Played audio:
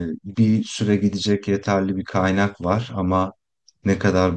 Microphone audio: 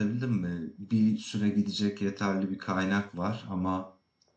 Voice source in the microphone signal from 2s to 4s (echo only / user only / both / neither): echo only